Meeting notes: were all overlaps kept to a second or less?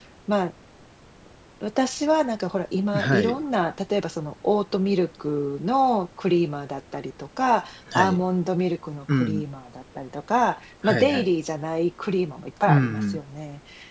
Yes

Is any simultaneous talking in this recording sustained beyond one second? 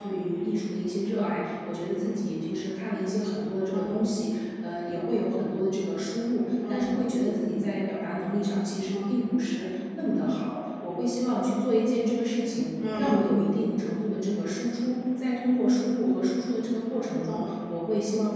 No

